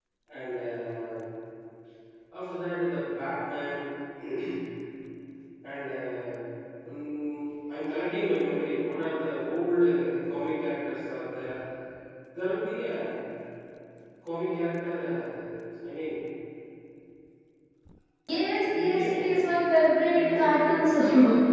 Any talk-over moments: Yes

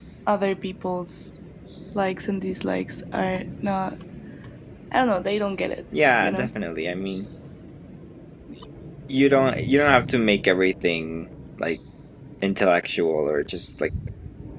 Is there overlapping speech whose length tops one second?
No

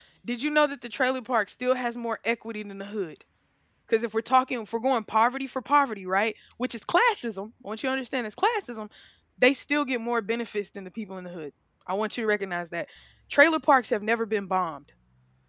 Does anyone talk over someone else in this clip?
No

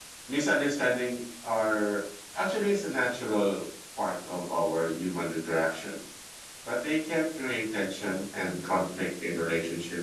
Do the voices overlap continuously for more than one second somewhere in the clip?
No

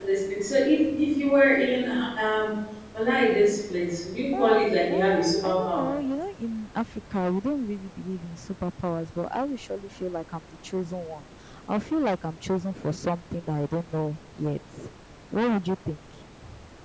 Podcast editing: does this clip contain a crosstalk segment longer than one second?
Yes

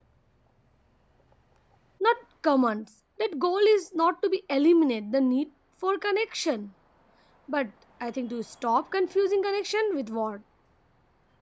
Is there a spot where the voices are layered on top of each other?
No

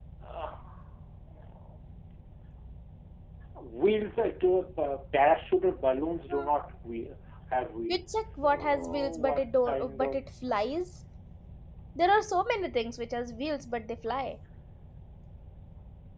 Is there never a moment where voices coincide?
No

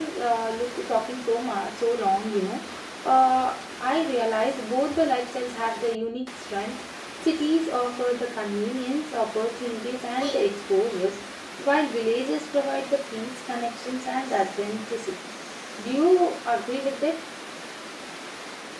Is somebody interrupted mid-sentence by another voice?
No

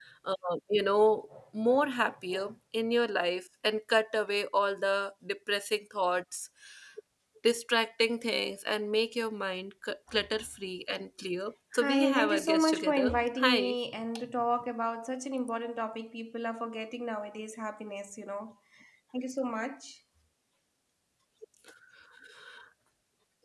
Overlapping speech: Yes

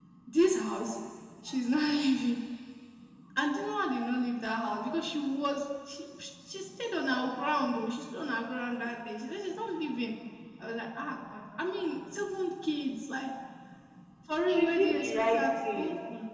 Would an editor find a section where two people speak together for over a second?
Yes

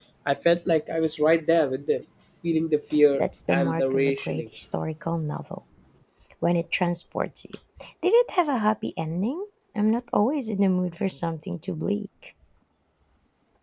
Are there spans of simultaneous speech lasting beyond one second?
Yes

